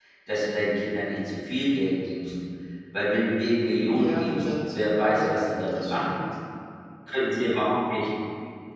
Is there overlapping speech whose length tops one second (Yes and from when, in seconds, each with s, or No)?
Yes, from 3.9 s